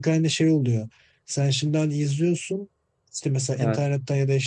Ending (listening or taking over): listening